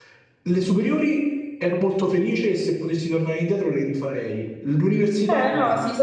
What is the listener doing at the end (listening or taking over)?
taking over